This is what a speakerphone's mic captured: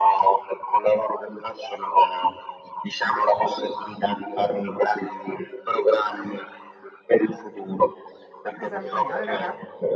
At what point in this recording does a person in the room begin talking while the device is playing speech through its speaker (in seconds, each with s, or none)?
8.5 s